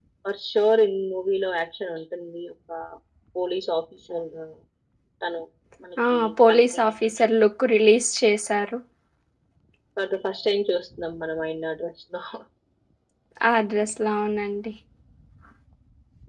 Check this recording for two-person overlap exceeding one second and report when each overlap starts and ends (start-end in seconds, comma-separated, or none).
6.0-7.2